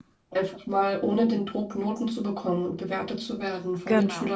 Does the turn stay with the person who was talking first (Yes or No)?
Yes